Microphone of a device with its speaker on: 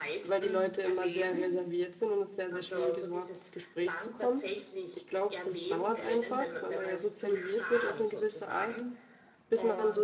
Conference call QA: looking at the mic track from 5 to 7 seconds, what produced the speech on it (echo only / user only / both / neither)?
both